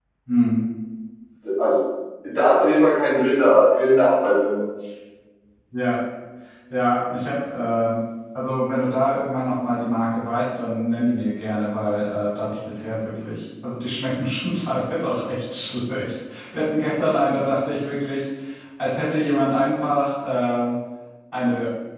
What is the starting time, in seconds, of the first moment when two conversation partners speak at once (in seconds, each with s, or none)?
none